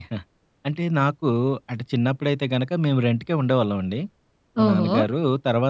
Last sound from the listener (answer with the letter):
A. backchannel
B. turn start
A